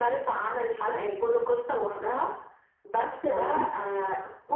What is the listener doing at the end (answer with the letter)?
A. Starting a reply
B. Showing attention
B